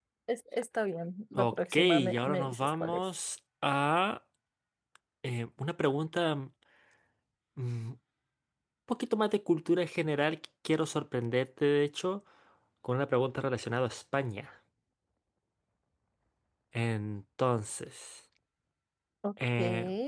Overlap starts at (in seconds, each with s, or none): 1.4 s